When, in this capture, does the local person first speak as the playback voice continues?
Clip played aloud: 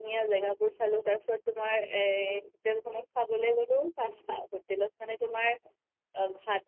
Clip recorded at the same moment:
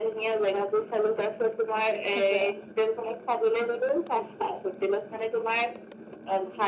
2.1 s

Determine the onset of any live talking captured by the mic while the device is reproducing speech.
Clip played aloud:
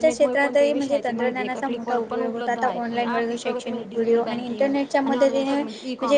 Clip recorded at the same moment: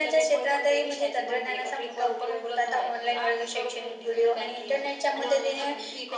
none

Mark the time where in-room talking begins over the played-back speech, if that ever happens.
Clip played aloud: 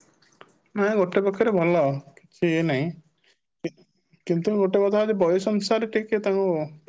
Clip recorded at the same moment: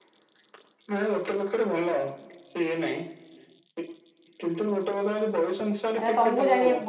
6.0 s

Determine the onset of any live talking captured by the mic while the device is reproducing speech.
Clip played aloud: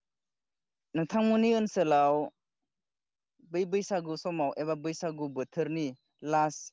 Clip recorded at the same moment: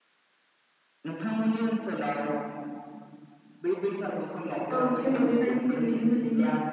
4.8 s

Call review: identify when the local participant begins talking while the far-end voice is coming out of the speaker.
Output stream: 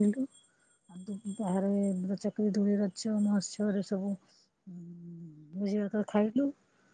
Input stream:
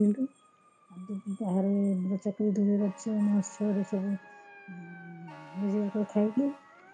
none

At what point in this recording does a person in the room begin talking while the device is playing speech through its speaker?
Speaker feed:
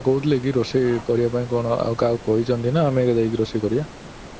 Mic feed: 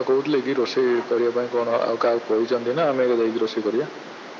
none

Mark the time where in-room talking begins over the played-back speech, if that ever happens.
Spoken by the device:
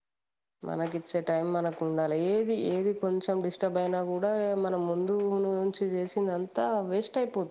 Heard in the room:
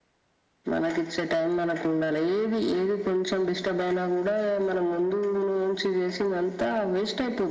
none

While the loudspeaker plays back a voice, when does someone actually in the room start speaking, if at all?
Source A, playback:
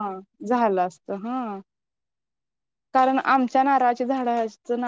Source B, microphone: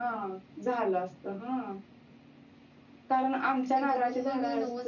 3.7 s

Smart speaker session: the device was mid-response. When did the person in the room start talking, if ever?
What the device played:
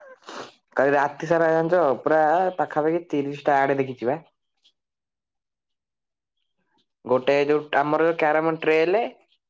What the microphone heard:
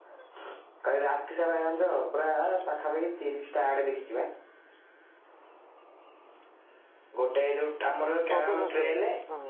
8.4 s

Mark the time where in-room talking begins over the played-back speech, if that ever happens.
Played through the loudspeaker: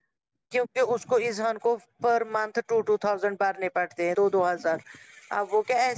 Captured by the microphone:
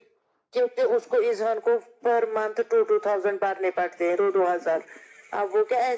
none

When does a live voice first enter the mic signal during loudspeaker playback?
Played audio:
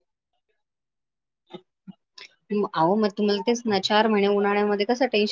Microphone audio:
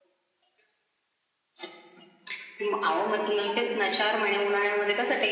none

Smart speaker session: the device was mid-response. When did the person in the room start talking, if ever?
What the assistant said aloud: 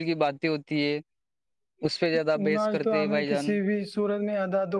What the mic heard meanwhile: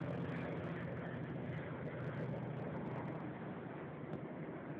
none

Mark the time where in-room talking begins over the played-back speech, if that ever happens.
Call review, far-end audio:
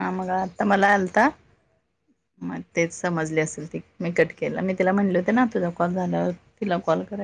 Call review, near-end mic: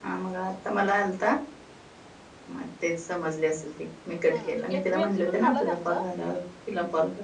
4.3 s

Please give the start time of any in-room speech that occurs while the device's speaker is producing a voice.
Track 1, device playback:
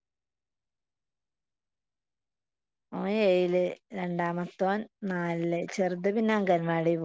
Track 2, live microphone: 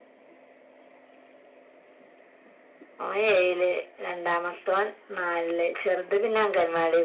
none

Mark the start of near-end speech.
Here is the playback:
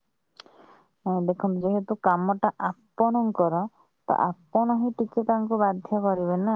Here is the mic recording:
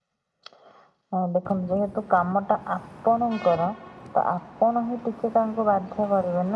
none

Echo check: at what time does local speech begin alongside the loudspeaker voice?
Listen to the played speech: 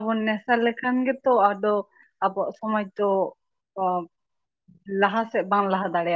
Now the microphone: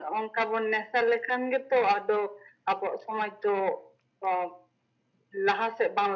none

